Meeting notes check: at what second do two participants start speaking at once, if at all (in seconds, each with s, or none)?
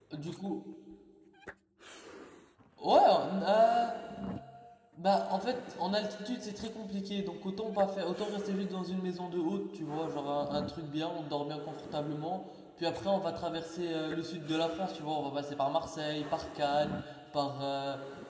none